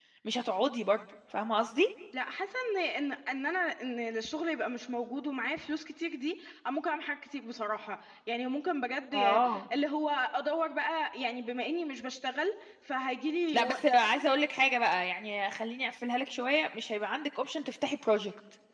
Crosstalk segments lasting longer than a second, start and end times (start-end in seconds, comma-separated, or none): none